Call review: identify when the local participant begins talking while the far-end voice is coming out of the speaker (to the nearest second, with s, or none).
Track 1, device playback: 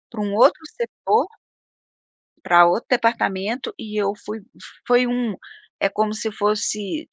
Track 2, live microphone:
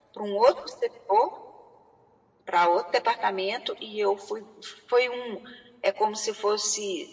none